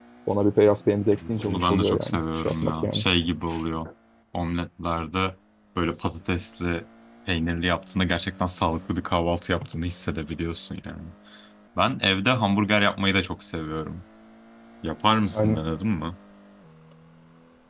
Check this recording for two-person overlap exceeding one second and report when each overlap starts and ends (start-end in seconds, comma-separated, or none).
1.3-3.0